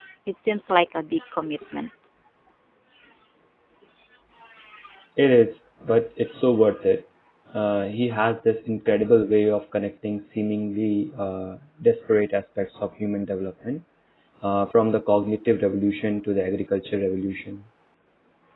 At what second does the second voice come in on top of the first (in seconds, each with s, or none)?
none